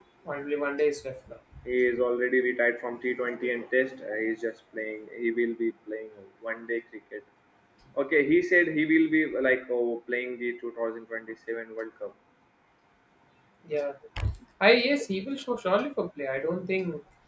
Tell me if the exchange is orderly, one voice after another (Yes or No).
Yes